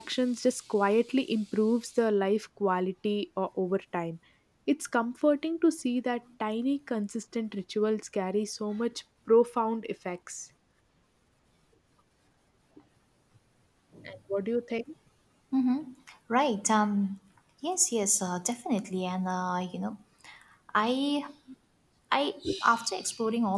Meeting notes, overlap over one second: none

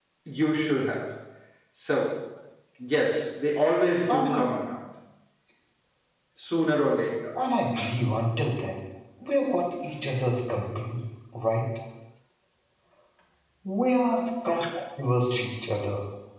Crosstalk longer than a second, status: none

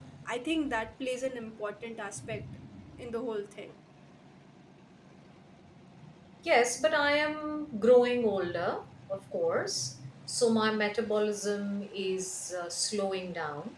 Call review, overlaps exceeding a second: none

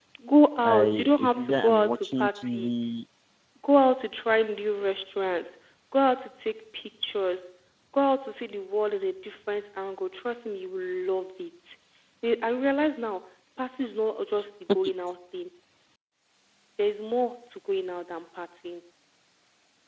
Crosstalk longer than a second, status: present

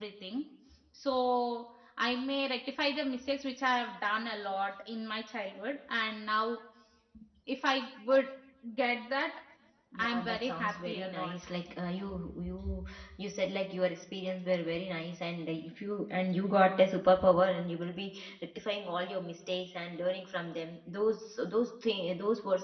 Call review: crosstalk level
present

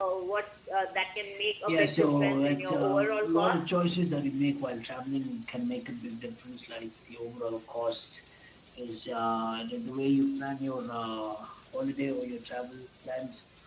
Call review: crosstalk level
present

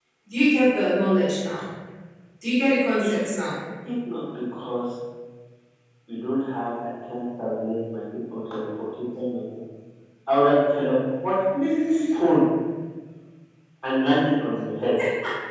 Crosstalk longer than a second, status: none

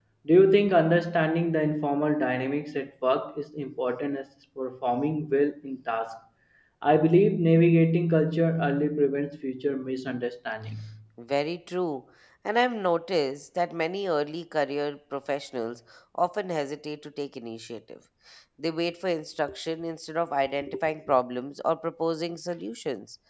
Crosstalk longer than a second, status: none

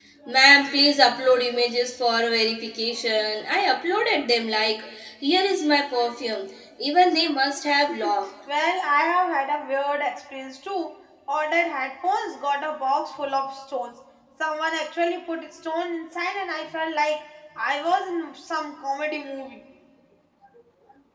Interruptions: none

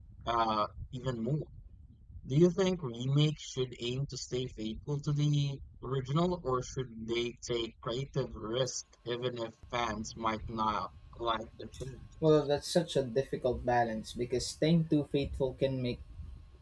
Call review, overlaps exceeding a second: none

